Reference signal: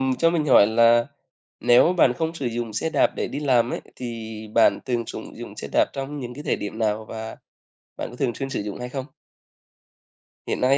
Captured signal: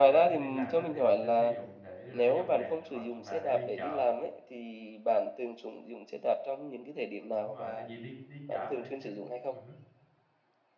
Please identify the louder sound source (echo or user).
echo